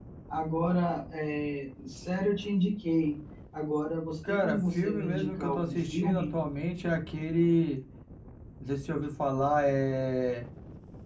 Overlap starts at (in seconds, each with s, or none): 4.2 s